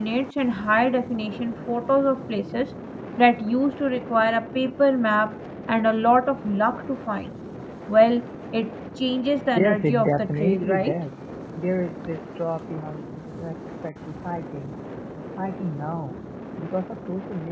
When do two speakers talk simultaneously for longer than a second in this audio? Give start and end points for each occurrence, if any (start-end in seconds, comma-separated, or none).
9.6-11.0